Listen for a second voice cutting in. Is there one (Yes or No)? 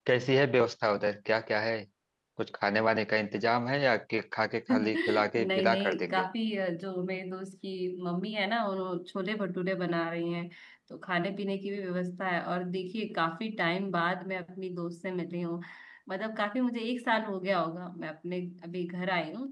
Yes